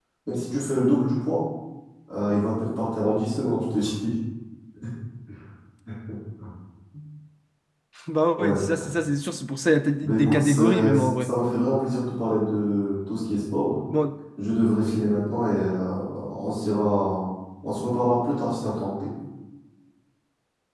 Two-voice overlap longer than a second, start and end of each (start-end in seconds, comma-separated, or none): 10.0-11.3